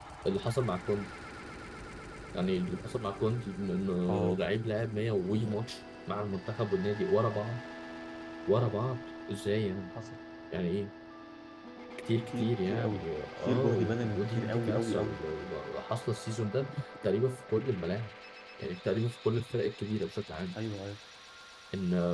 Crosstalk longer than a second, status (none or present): present